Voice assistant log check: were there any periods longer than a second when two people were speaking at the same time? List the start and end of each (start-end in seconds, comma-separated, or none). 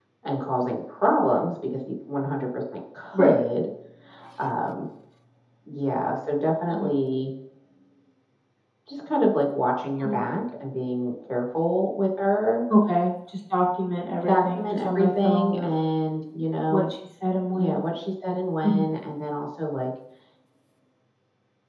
14.2-15.7